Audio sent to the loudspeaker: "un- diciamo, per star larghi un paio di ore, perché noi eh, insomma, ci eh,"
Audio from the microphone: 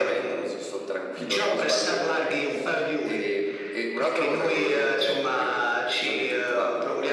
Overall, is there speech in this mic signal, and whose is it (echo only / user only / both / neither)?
both